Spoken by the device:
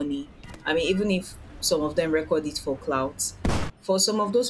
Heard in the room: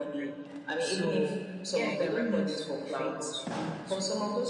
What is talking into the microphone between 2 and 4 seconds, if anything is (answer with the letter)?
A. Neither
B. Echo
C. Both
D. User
C